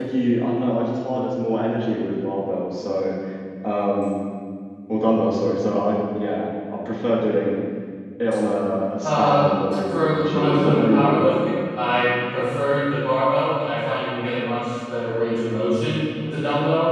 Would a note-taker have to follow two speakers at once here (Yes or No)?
Yes